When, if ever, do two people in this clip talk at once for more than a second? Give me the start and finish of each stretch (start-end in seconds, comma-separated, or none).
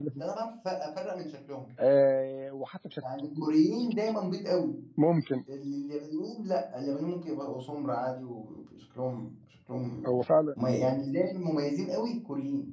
none